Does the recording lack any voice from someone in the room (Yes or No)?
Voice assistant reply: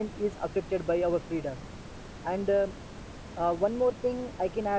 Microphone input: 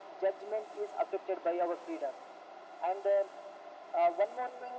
Yes